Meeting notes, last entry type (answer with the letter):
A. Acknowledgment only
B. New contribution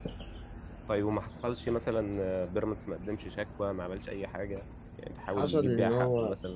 B